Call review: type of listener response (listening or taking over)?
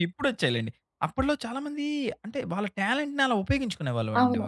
taking over